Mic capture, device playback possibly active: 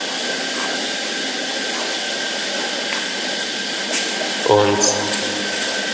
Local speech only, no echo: Und

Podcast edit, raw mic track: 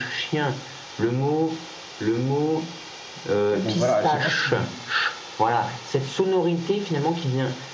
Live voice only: Mais donc voilà, je sais pas si vous.

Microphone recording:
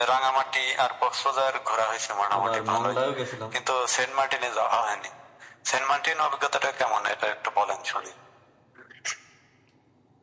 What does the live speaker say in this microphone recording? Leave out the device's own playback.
আবার মংলায়ও গেছিলাম

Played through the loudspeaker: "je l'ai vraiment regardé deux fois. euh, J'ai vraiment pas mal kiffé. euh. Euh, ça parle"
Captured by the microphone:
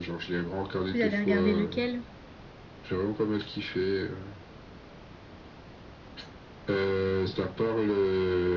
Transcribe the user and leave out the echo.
Vous avez regardé lequel?

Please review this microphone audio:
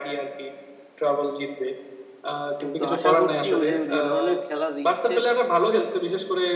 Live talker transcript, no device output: কিন্তু আশা করছি ও যে যে ধরনের খেলা দিচ্ছে

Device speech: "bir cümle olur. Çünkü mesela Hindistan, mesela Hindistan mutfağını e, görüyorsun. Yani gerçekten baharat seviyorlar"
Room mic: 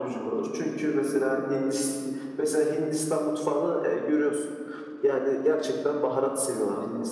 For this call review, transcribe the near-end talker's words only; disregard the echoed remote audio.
none

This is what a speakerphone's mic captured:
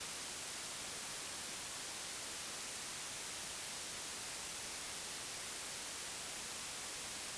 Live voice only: none

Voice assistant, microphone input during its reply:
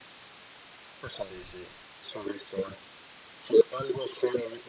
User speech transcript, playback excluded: sí, sí.

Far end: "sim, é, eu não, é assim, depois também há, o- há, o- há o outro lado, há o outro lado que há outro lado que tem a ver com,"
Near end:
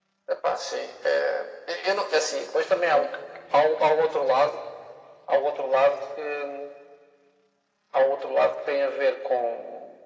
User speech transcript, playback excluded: none

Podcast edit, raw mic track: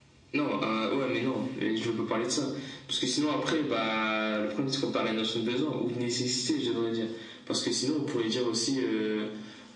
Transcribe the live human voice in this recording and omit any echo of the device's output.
none

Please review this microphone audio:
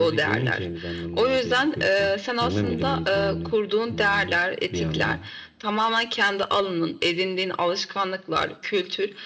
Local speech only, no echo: none

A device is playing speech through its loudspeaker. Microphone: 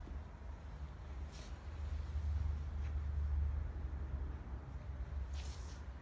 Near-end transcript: none

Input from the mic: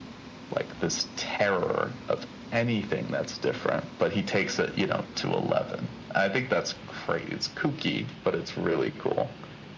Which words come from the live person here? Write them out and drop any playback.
none

